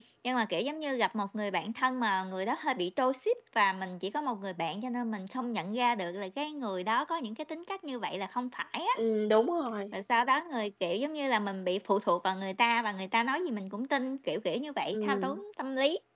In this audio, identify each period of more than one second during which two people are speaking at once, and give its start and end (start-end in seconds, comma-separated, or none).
none